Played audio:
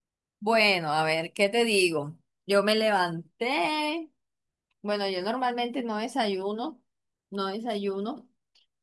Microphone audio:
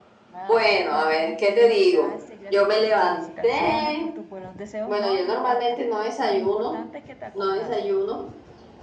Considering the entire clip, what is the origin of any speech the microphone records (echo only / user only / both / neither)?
both